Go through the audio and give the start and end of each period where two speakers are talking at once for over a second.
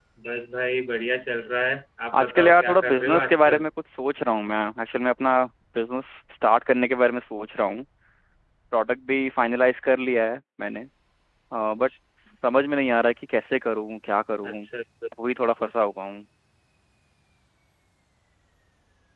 2.2-3.6

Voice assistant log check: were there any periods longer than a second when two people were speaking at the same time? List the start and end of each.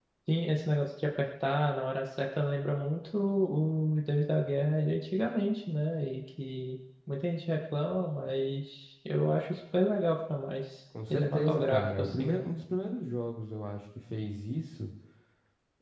11.1-12.4

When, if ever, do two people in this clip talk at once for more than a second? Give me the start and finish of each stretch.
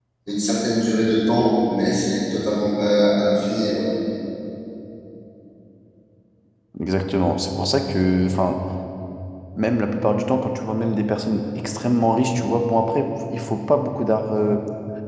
none

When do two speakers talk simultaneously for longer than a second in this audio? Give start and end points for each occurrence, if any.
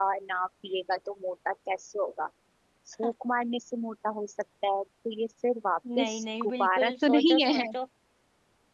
6.0-7.7

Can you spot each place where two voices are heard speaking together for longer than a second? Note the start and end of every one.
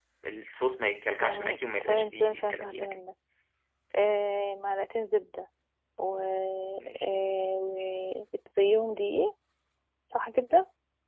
1.2-3.0

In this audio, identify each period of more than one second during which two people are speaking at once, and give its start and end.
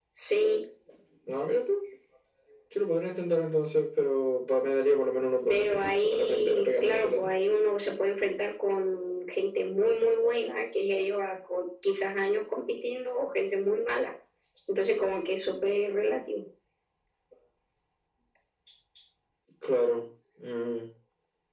5.5-7.3

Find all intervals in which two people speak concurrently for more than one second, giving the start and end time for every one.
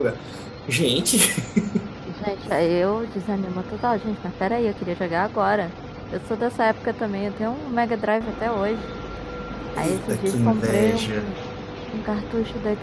9.8-11.3

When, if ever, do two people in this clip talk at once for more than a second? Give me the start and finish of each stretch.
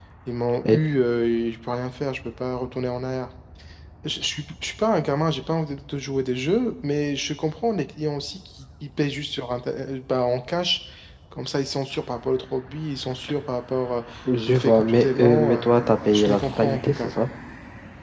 14.5-17.1

